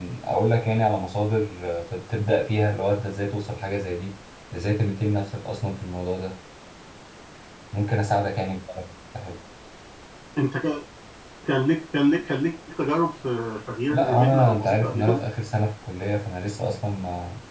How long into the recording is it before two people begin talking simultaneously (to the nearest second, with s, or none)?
14 s